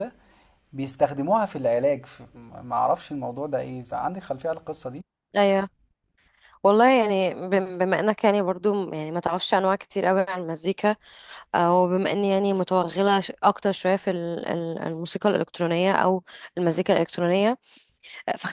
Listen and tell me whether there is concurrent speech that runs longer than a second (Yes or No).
No